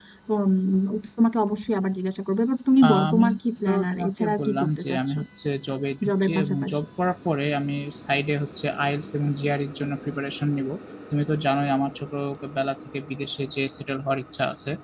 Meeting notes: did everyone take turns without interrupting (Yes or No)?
No